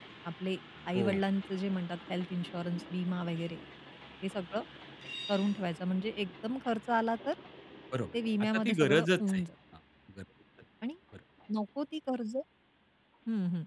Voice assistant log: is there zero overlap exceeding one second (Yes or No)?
No